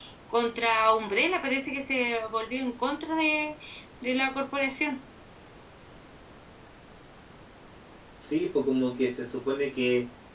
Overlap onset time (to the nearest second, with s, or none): none